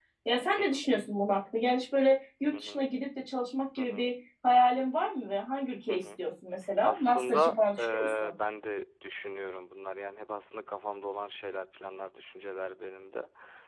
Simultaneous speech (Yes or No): Yes